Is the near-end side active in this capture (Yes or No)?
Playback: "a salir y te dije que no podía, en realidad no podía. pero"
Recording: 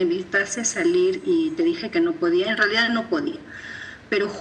No